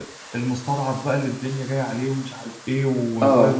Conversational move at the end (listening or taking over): listening